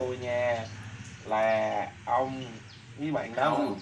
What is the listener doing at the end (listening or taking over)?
taking over